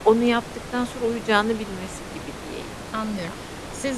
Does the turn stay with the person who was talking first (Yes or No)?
No